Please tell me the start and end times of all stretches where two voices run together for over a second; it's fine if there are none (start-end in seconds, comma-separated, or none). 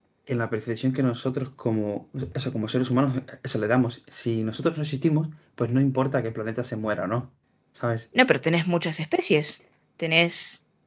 none